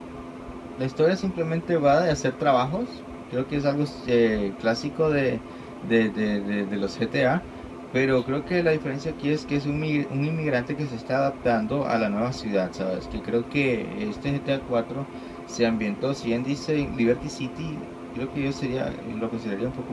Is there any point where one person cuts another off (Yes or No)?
No